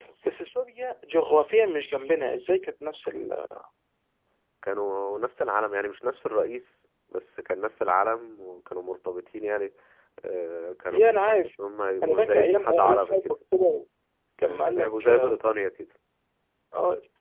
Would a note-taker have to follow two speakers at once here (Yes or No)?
Yes